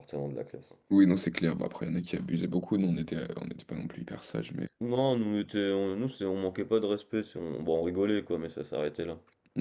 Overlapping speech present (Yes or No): No